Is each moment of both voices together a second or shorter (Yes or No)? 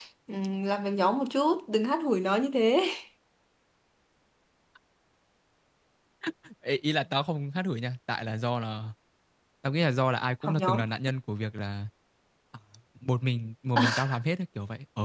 Yes